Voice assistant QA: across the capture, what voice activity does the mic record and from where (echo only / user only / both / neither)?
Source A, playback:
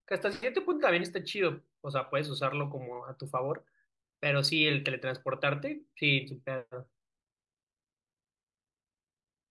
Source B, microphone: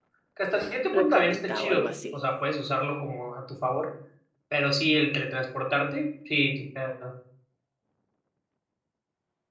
both